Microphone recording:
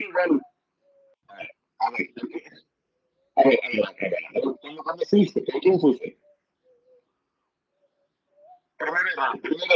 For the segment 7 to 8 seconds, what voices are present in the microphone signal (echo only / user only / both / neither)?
neither